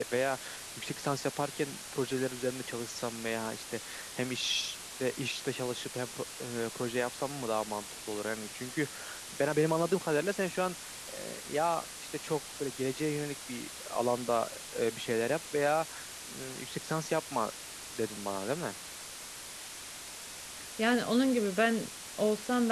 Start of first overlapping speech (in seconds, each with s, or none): none